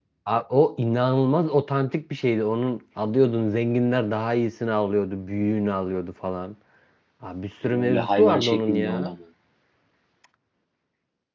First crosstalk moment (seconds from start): 7.6 s

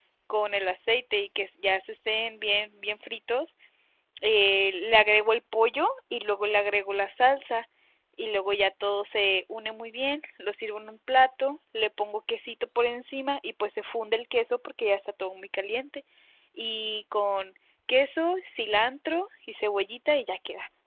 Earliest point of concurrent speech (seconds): none

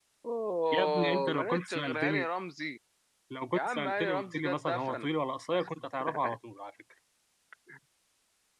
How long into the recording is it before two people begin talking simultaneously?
0.7 s

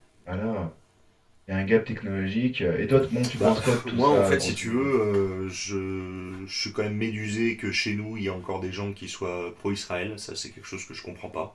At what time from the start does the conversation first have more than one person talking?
3.4 s

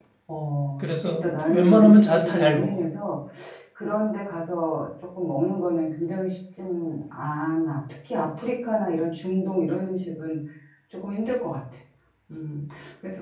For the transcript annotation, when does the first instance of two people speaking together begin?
0.8 s

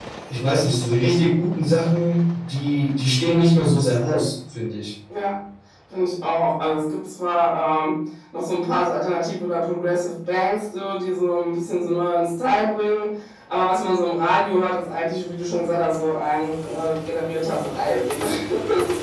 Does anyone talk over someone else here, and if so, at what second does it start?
none

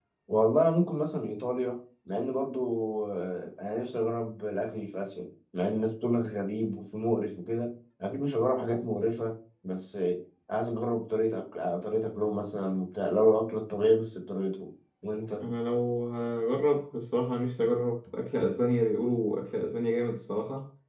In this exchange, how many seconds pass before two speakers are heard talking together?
none

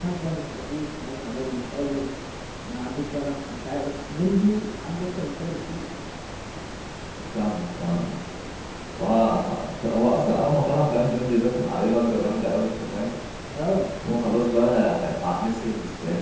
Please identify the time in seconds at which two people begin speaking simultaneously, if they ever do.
none

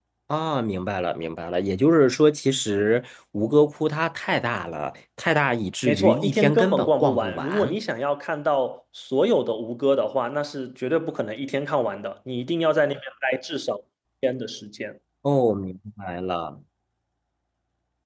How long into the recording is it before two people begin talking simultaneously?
5.8 s

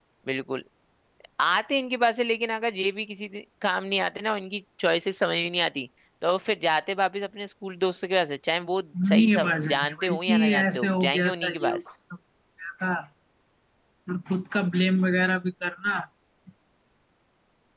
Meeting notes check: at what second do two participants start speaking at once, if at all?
8.9 s

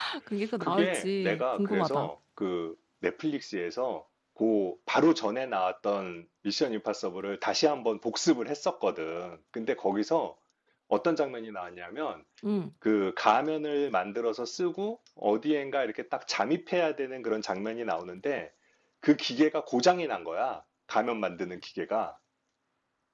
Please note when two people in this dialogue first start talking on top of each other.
0.6 s

